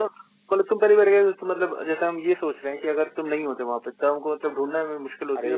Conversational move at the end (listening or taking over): taking over